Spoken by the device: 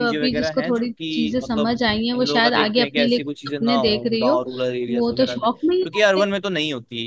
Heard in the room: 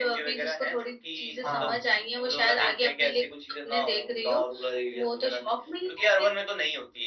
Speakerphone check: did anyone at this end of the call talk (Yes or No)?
Yes